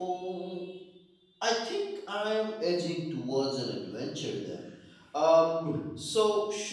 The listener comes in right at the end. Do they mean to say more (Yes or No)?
No